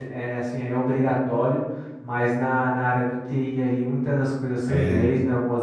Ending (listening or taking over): listening